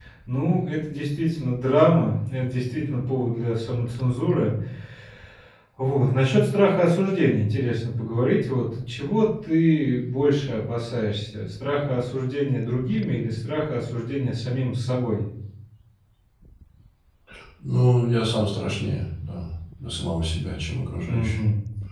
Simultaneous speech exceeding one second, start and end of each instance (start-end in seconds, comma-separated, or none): none